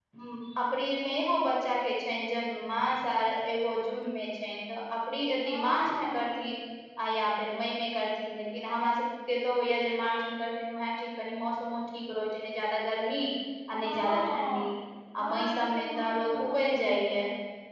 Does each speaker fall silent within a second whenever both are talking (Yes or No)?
No